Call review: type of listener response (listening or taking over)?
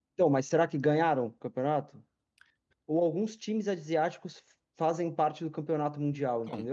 taking over